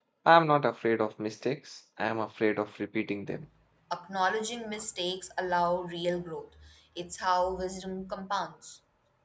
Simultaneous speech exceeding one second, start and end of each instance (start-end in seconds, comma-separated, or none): none